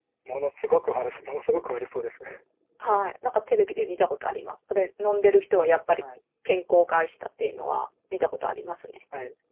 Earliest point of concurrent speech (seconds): none

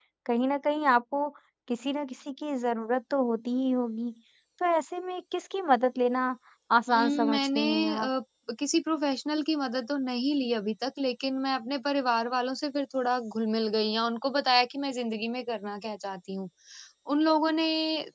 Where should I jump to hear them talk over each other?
7 s

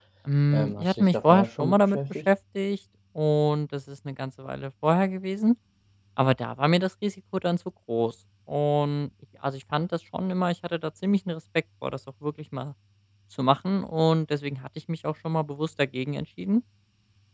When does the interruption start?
1 s

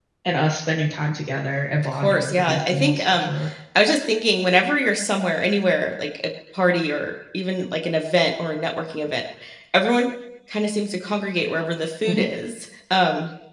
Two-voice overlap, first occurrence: 2 s

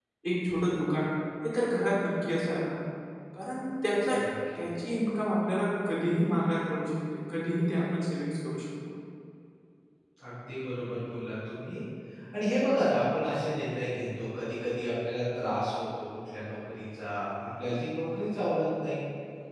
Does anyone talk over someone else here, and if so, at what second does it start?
none

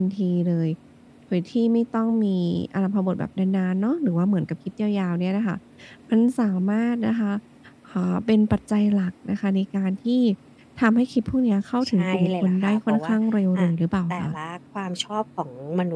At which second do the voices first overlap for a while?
12 s

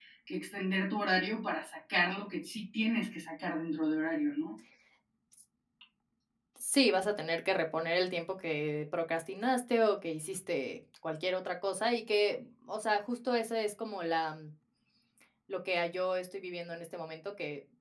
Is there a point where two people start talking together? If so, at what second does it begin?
none

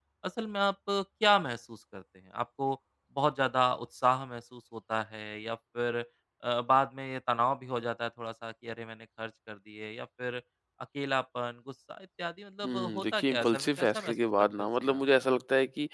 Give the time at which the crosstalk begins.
13 s

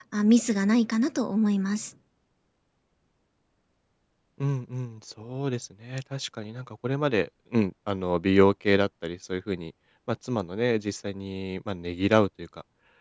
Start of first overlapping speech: none

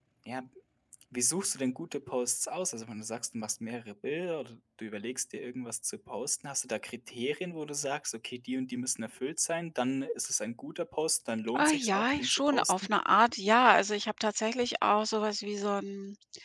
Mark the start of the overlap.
11 s

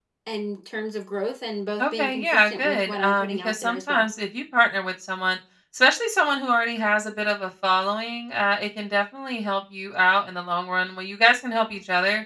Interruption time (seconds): 2 s

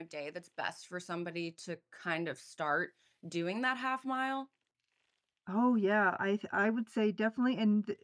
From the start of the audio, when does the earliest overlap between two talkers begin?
none

